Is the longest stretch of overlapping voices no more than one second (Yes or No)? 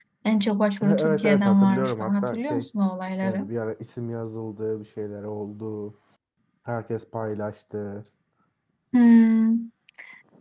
No